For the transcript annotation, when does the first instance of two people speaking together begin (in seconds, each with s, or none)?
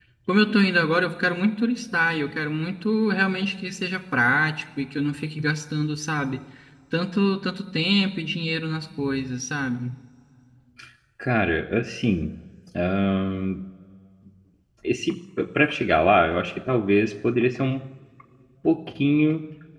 none